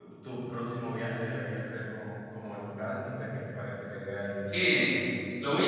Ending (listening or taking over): taking over